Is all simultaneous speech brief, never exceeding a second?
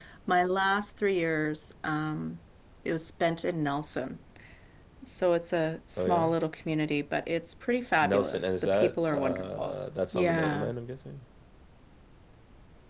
No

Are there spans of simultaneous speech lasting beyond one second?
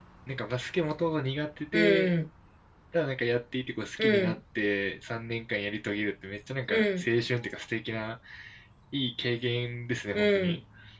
No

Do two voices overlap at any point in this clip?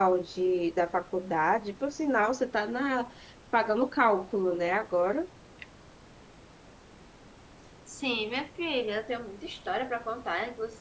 No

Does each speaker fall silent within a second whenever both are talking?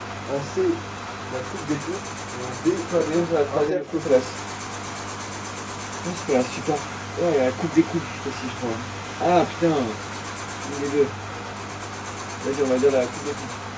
No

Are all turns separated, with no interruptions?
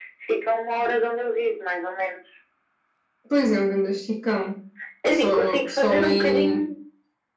No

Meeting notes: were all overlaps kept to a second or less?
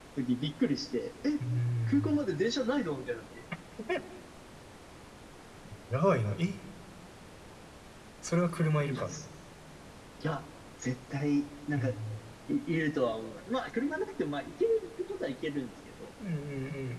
Yes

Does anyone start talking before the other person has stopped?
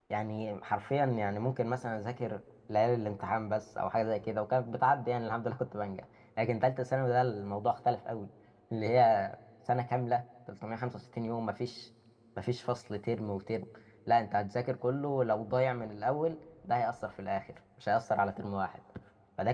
No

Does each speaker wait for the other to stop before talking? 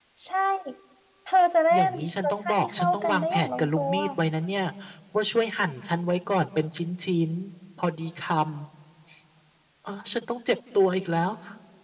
No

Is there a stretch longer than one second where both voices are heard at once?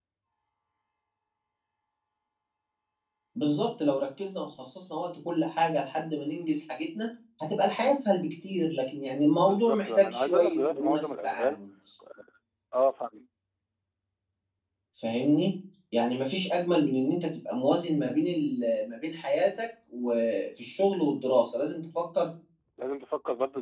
Yes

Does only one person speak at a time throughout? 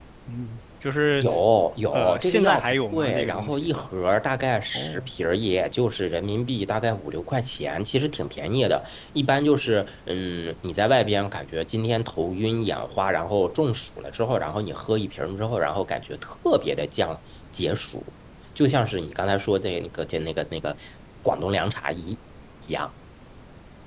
No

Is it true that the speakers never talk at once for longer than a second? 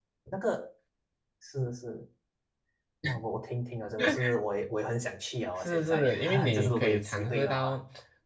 No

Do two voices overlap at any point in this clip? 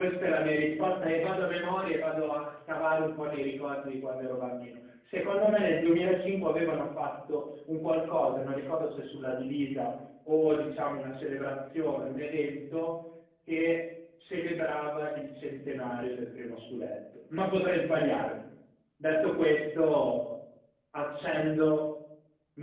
No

